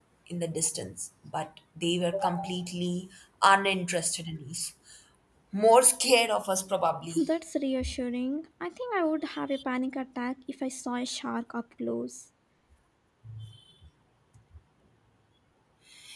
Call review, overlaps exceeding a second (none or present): none